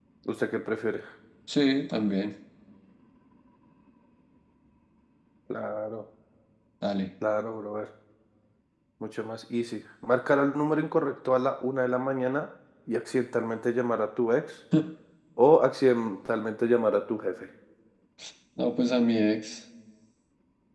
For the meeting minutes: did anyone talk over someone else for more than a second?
No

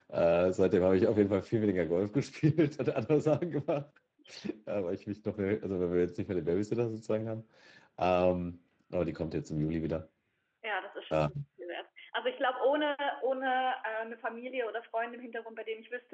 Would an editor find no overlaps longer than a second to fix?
Yes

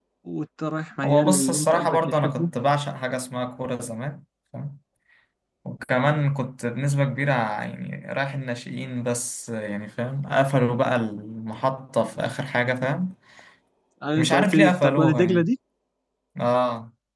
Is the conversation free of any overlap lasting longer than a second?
No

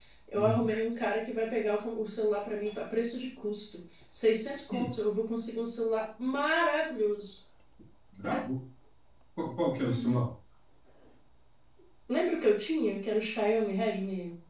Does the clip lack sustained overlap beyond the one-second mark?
Yes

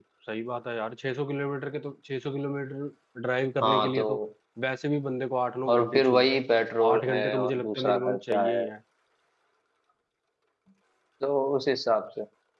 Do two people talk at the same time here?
Yes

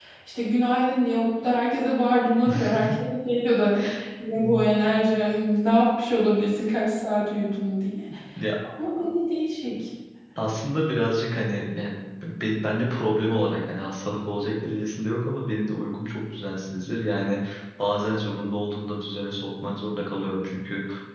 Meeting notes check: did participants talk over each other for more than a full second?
No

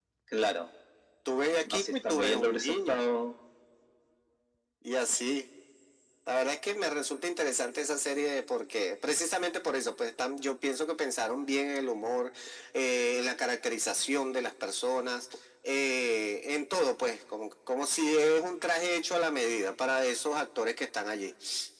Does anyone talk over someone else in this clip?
Yes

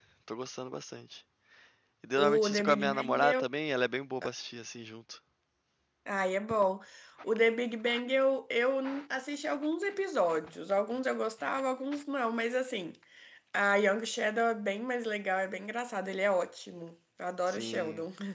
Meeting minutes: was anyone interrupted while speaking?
Yes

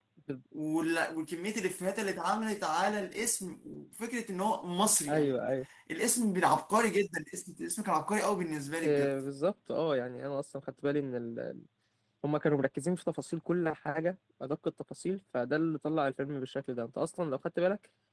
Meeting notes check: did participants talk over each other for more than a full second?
No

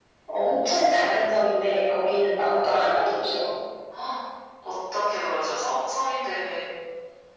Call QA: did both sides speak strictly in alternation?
Yes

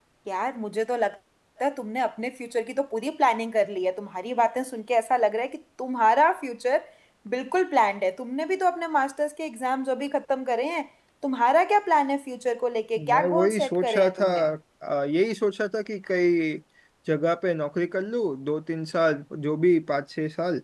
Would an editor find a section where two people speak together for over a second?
Yes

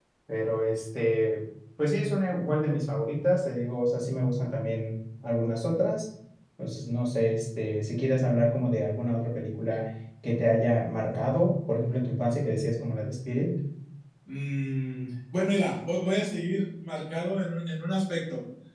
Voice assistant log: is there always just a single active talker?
Yes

